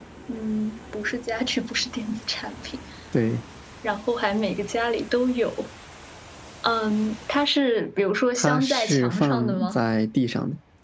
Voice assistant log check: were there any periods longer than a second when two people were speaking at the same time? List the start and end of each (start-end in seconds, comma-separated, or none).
8.4-9.8